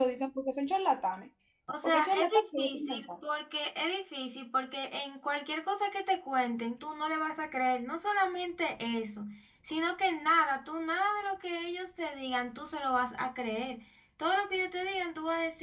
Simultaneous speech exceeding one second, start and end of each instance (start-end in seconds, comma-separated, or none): 1.8-3.1